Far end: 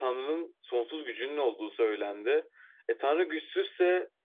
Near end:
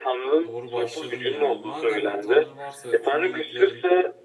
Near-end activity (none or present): present